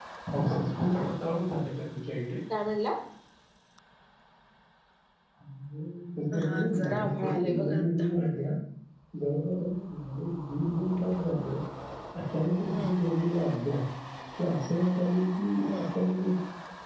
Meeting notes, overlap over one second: present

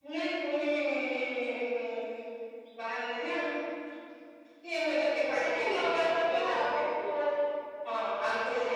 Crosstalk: present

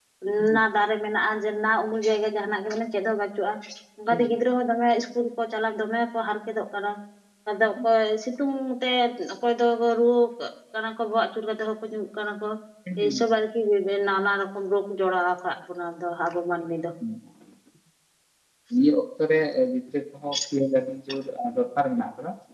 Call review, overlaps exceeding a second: none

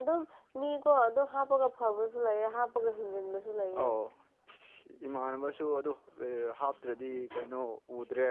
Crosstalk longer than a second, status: none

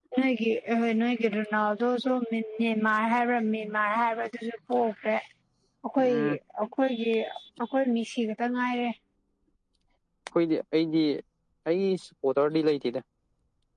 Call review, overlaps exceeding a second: none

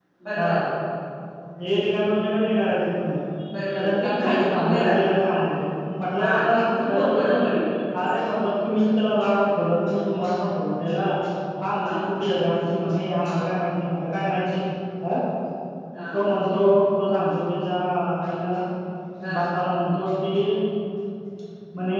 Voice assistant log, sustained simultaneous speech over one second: present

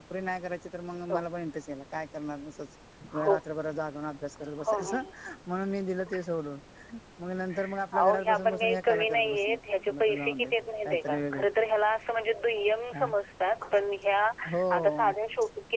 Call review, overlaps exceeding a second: present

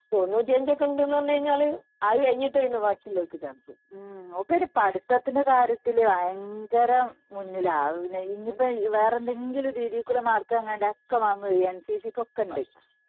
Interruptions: none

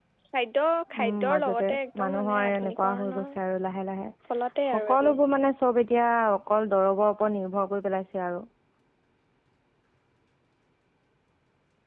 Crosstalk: present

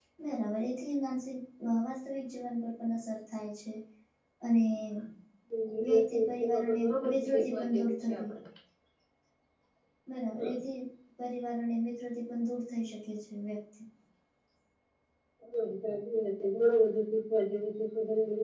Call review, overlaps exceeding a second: present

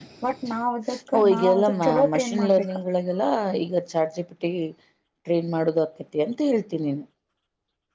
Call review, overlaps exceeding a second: present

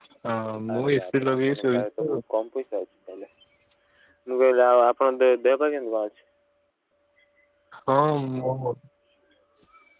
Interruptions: present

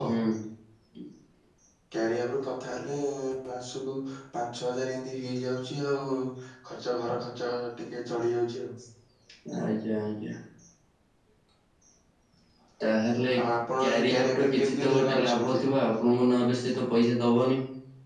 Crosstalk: present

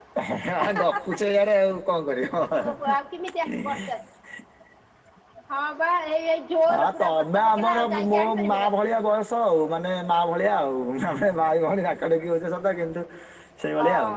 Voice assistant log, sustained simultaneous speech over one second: present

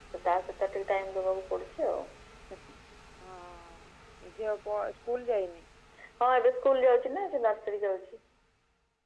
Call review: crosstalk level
none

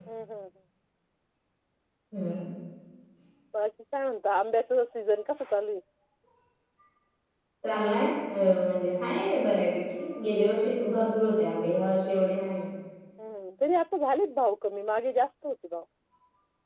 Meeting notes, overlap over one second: none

